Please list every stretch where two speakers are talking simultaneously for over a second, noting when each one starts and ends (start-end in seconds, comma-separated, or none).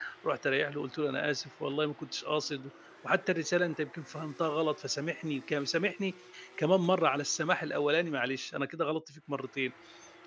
none